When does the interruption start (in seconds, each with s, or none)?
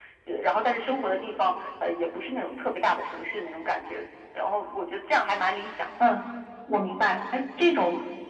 none